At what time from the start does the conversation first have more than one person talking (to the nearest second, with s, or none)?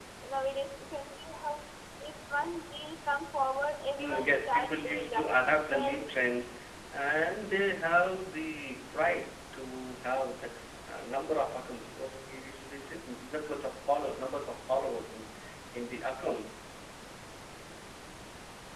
4 s